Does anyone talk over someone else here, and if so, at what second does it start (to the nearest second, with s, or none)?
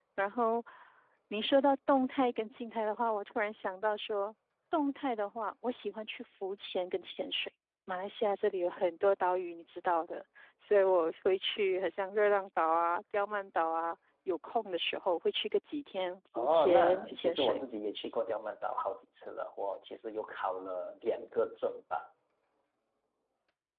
16 s